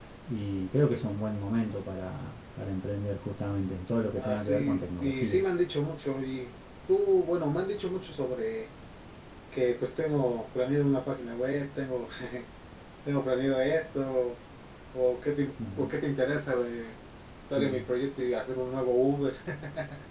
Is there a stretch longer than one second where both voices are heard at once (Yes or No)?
Yes